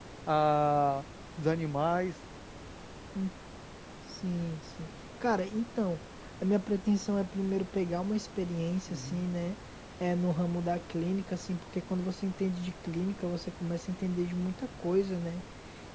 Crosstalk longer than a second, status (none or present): none